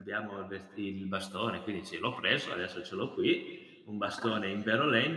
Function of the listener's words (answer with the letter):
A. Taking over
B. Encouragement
B